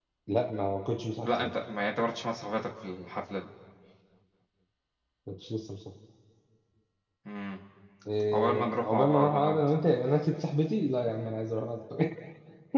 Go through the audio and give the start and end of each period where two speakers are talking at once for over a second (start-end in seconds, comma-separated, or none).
8.3-9.6